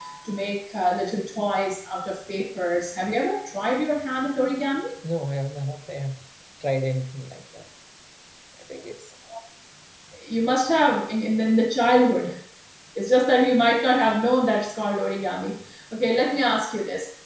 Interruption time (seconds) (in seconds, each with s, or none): none